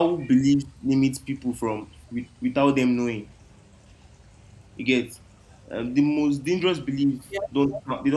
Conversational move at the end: listening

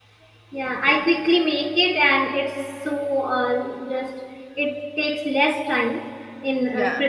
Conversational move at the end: listening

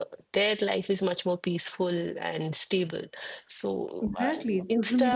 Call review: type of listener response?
taking over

